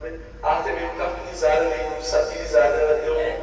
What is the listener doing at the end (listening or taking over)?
listening